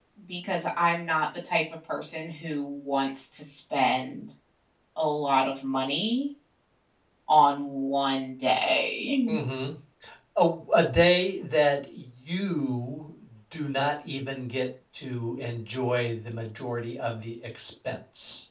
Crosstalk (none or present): none